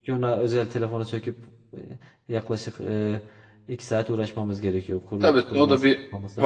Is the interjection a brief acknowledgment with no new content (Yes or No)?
No